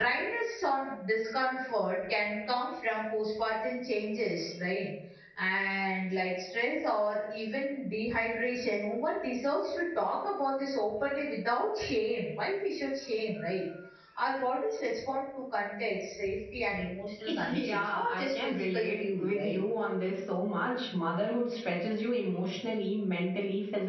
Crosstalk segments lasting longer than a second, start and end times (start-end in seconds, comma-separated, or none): 17.3-19.6